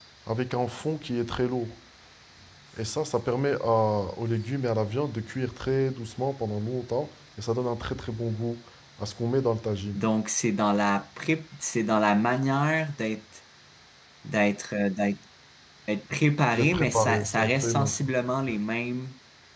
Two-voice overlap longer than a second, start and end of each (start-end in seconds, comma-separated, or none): 16.5-18.0